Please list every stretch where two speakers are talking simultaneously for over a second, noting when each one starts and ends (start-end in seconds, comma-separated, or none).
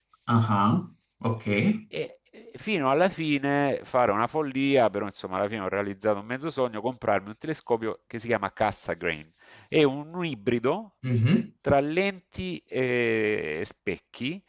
none